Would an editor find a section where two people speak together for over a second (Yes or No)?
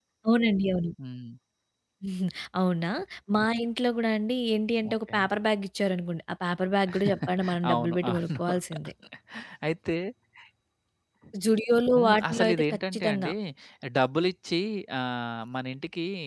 Yes